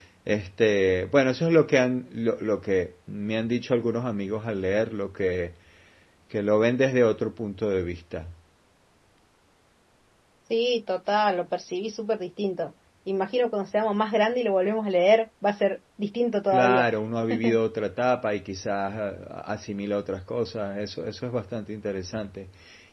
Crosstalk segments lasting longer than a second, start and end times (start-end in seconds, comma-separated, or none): none